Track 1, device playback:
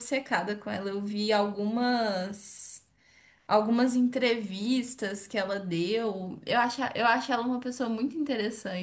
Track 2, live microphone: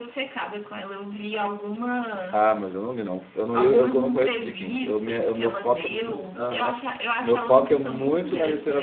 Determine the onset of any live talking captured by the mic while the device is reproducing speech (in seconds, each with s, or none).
2.3 s